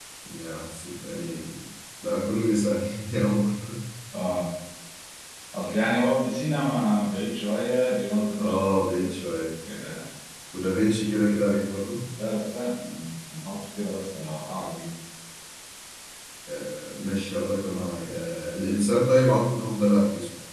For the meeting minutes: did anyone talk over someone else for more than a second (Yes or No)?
No